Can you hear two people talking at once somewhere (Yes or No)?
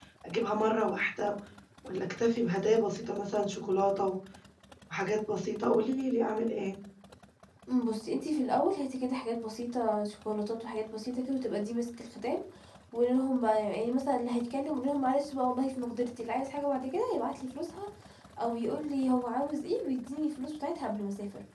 No